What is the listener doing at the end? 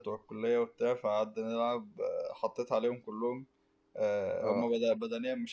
listening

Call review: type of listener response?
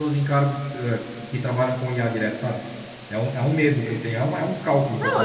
taking over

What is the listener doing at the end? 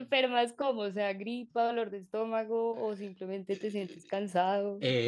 taking over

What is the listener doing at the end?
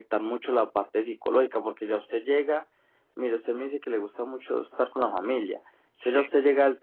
listening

